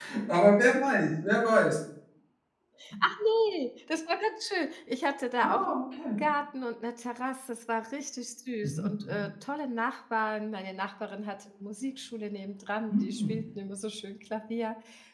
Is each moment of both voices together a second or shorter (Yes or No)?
Yes